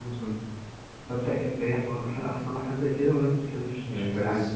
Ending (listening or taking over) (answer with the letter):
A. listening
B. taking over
B